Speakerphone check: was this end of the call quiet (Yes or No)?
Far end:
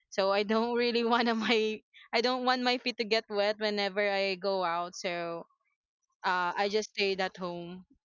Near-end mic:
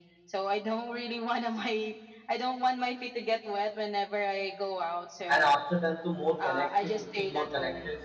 No